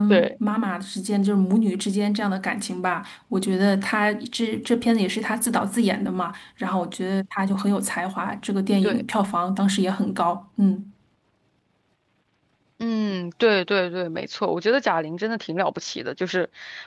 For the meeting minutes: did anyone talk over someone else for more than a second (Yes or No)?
No